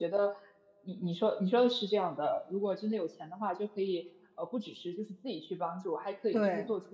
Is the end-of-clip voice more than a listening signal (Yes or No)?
No